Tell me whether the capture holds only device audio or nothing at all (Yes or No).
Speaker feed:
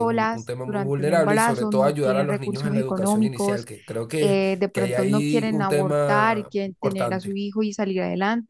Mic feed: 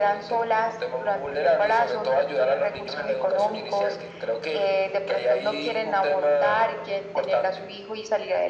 Yes